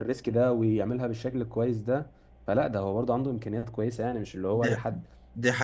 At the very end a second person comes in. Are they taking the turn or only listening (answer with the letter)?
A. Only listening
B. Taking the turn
B